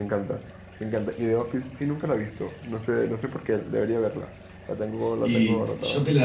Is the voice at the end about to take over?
Yes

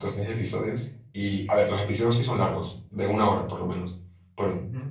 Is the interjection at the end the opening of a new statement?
No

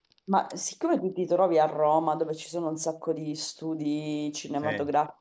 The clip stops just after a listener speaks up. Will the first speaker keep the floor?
Yes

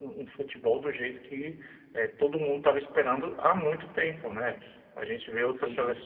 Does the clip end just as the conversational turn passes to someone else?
No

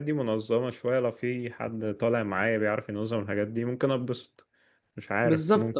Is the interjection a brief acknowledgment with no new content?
No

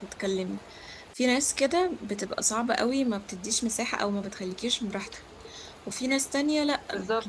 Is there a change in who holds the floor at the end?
No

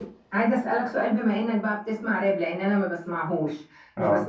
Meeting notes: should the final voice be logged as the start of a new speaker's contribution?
No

